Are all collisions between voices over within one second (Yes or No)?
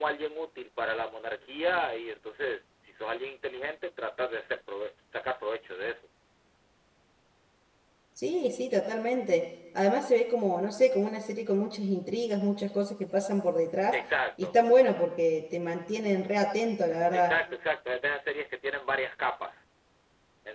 Yes